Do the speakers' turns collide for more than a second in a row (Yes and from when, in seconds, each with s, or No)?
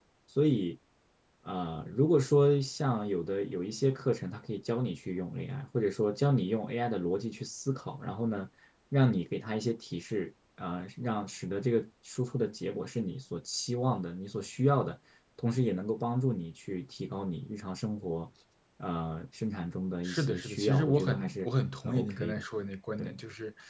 Yes, from 20.0 s